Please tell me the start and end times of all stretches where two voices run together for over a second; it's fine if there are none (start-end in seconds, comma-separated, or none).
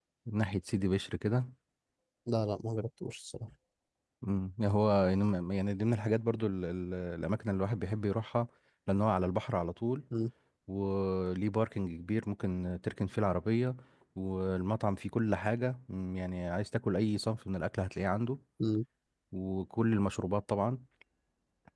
none